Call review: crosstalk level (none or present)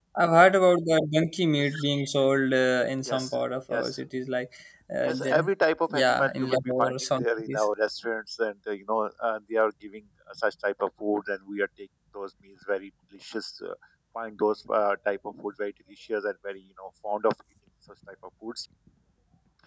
present